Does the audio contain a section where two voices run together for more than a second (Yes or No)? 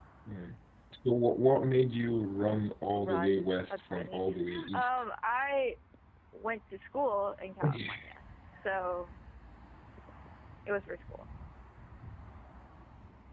Yes